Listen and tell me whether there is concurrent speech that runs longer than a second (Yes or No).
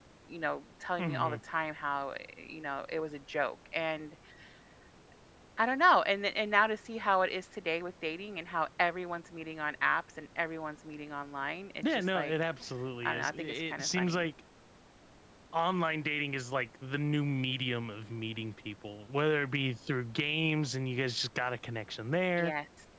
Yes